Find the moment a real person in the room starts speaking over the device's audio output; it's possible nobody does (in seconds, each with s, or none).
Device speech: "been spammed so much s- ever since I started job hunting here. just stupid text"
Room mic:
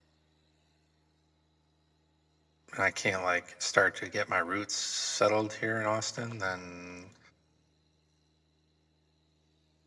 2.7 s